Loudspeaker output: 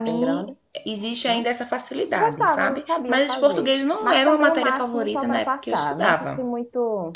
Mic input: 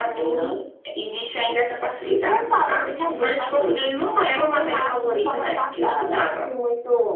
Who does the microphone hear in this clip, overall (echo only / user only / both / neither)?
echo only